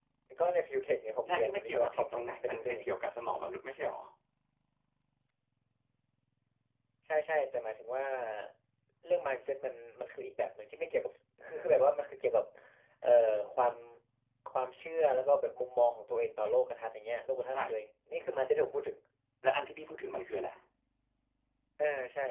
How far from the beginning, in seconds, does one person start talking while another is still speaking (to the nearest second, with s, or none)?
1 s